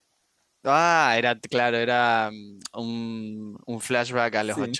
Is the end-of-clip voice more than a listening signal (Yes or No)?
Yes